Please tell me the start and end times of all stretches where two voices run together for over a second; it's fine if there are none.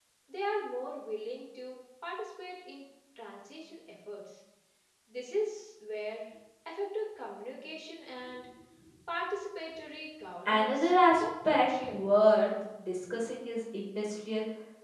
10.5-12.0

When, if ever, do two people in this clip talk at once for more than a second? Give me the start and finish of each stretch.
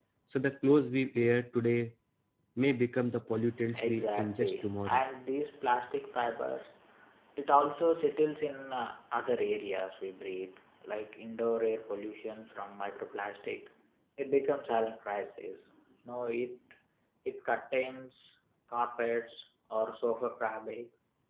3.7-5.0

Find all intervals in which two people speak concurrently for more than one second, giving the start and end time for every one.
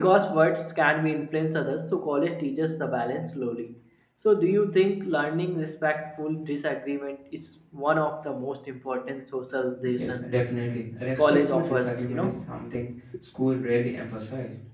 11.2-12.5

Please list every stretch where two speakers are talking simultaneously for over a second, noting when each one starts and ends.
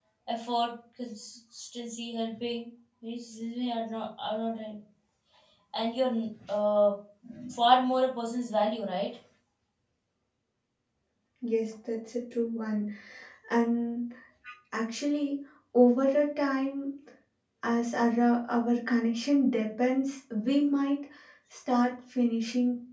none

